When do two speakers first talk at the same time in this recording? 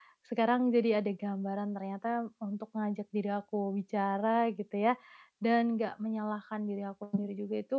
none

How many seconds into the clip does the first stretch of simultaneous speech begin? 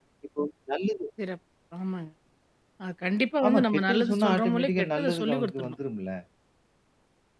3 s

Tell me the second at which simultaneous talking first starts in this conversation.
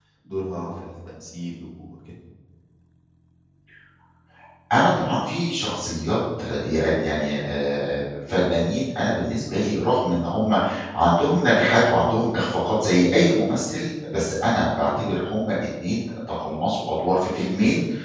none

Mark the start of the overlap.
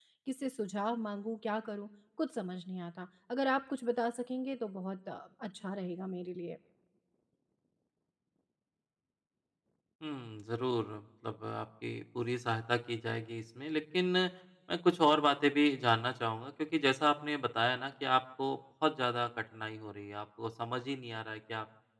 none

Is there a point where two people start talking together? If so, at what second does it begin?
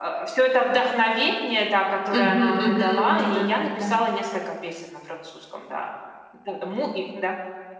2 s

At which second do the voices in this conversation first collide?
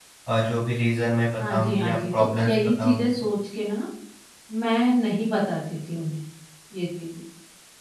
1 s

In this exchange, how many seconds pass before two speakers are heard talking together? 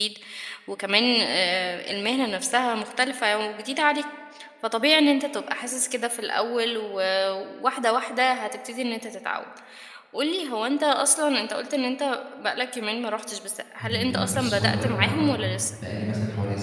14 s

